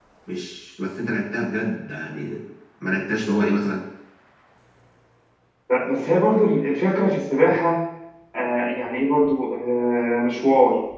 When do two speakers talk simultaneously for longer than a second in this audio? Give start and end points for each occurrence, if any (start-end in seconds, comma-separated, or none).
none